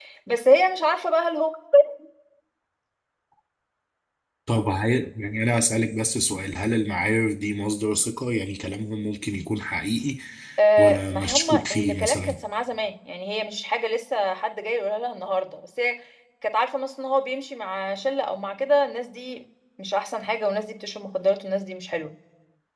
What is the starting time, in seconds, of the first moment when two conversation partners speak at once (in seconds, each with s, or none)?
10.8 s